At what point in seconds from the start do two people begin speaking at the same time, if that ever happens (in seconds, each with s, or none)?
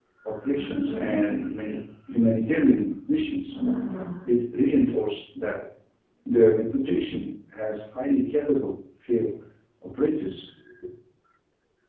none